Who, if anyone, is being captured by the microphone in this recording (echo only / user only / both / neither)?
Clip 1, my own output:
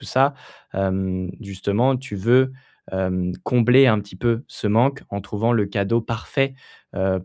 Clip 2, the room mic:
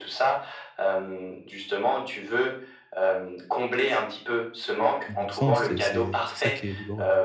both